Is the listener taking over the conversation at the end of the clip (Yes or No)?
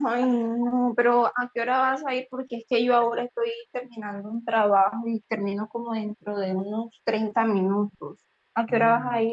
Yes